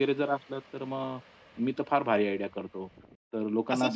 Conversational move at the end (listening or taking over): taking over